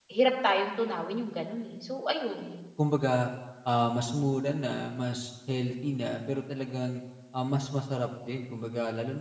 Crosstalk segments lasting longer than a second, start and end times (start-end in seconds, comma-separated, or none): none